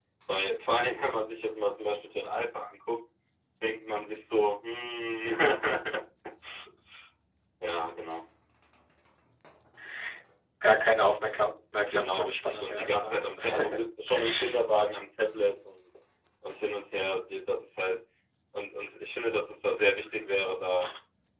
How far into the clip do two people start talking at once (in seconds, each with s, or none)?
11.9 s